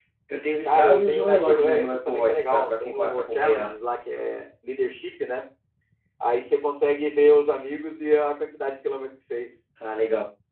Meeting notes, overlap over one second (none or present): present